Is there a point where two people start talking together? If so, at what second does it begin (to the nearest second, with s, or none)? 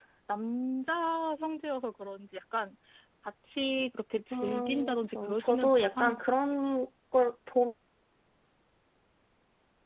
4 s